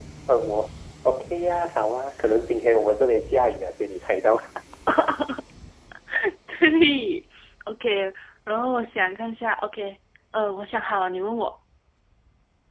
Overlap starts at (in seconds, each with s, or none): none